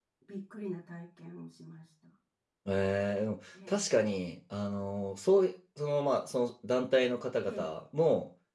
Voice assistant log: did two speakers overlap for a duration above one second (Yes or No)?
No